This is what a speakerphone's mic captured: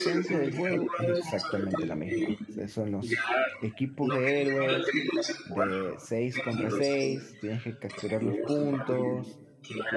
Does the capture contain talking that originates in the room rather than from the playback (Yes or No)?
Yes